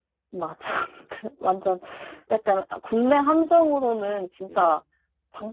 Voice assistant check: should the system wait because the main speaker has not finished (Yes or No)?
Yes